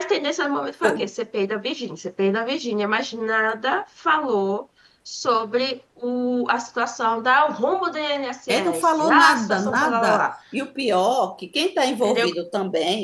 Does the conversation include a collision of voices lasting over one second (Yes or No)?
Yes